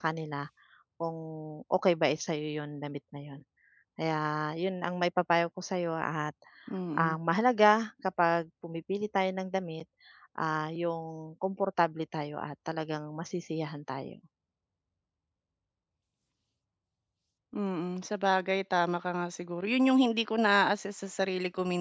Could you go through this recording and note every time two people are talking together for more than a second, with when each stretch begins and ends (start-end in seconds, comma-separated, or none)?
none